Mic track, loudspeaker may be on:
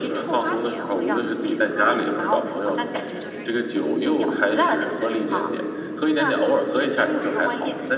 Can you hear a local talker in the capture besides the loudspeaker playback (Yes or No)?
No